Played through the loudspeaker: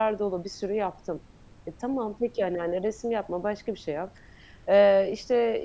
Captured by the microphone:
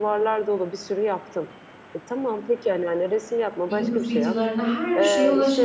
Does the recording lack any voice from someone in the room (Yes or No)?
No